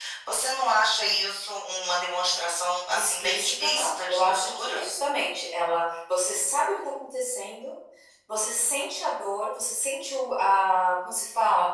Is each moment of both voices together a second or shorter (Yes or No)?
No